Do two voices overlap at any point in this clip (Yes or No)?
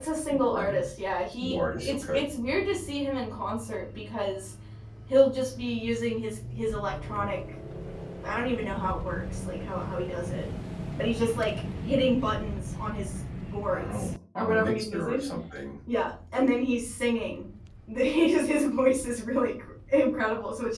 Yes